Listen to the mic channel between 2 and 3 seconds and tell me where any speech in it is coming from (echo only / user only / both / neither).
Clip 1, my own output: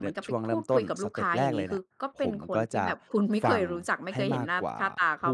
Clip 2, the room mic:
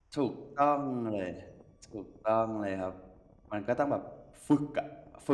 user only